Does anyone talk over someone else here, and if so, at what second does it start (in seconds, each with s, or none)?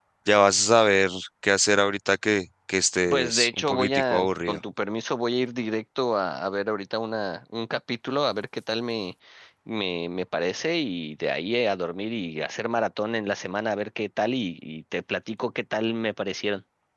3.1 s